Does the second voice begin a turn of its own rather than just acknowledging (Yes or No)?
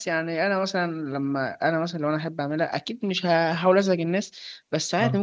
No